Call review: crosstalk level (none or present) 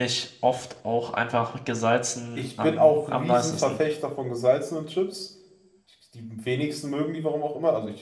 present